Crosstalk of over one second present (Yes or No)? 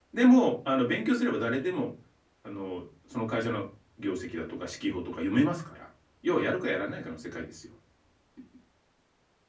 No